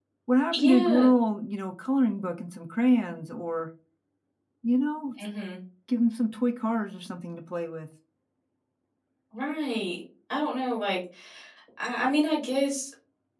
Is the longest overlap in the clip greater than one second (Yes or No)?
No